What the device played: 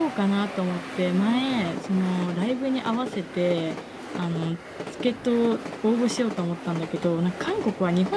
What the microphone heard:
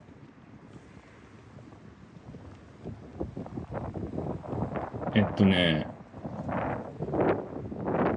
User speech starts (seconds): 5.1 s

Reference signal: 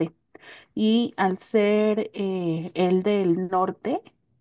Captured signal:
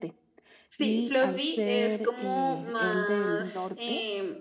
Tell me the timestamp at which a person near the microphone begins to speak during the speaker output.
0.7 s

